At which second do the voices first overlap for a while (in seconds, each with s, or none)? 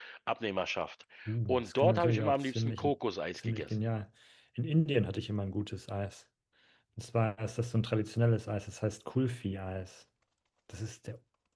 1.5 s